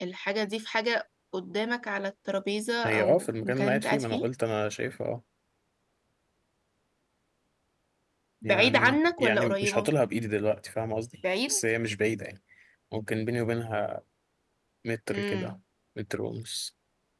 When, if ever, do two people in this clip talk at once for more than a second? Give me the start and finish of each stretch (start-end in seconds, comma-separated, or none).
2.8-4.2, 8.4-9.9